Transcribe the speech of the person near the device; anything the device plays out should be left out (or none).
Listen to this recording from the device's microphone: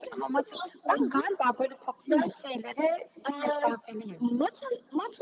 none